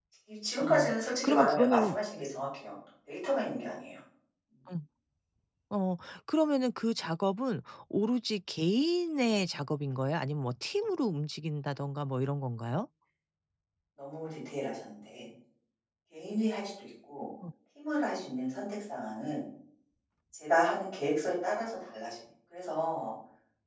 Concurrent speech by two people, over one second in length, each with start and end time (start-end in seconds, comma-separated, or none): 0.6-2.0